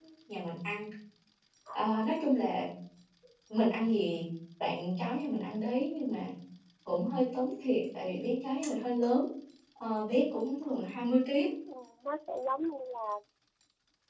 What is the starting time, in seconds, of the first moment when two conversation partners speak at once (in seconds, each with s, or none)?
none